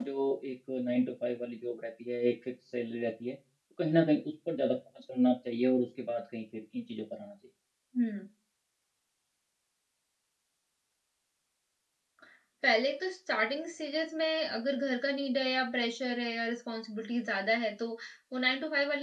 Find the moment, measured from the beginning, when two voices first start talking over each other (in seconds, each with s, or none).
none